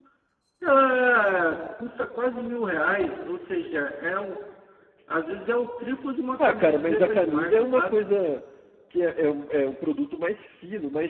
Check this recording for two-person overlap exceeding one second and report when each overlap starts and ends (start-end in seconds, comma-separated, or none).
6.4-8.0